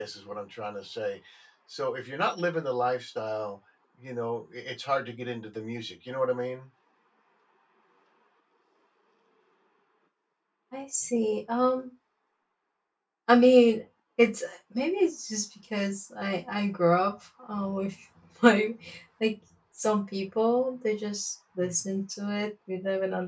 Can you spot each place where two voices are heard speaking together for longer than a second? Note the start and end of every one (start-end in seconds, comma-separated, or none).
none